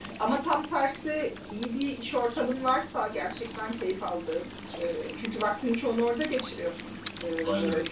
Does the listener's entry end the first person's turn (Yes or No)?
No